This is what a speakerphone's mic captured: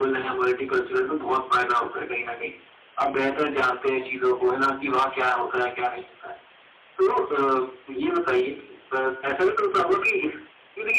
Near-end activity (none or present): none